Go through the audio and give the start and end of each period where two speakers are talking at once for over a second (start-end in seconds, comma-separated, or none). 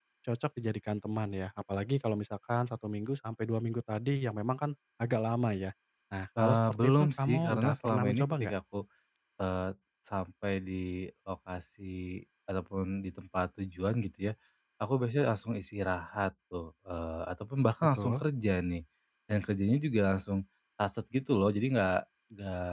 6.4-8.5